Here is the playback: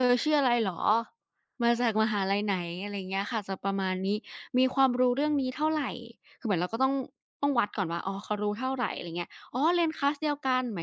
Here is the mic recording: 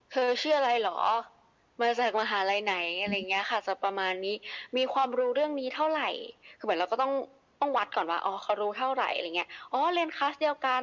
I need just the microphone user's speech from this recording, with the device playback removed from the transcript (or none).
อืม